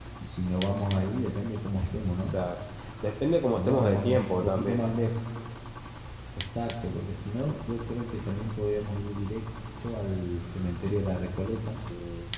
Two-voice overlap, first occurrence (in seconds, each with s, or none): 3.5 s